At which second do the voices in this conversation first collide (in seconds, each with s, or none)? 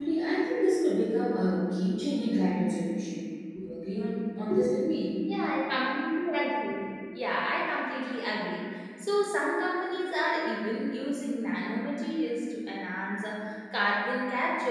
none